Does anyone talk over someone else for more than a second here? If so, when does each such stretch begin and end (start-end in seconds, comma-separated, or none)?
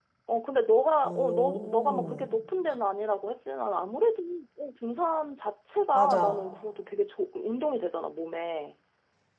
1.0-2.3